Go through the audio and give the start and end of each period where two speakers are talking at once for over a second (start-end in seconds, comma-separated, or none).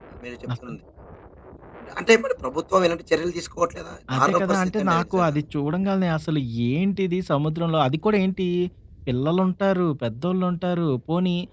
4.1-5.3